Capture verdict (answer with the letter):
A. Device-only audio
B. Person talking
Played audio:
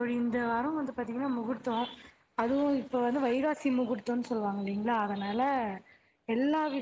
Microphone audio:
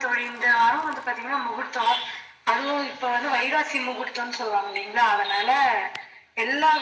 A